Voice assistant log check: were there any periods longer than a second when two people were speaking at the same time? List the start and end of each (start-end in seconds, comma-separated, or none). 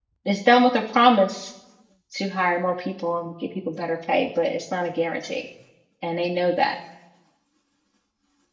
none